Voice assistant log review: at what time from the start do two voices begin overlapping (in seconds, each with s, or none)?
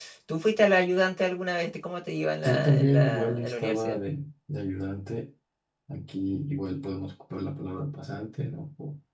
2.4 s